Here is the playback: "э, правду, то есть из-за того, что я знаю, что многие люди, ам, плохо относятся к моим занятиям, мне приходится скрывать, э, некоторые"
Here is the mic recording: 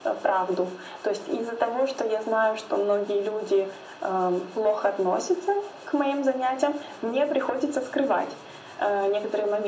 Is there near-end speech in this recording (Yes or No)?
No